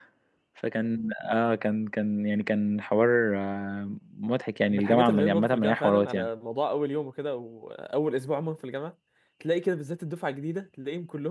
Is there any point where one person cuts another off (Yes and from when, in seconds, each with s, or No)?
Yes, from 4.7 s